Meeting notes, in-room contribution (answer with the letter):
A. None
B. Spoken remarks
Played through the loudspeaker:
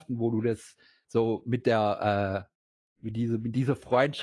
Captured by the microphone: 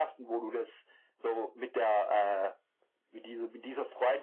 A